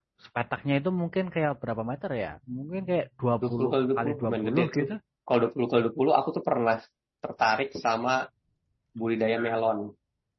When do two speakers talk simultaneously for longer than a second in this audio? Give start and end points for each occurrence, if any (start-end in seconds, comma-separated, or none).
3.4-4.8